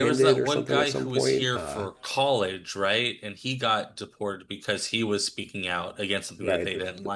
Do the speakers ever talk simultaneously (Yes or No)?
Yes